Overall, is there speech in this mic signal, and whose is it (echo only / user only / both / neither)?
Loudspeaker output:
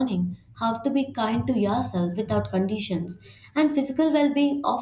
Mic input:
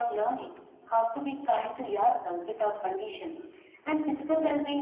echo only